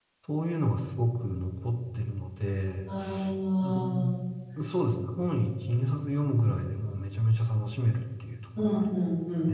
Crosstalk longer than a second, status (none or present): none